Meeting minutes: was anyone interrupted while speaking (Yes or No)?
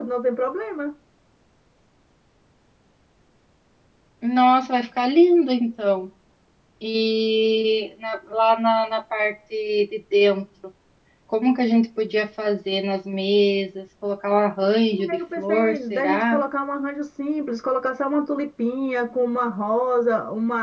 Yes